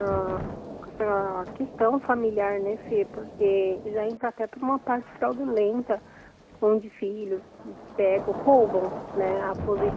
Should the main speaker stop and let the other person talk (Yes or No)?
No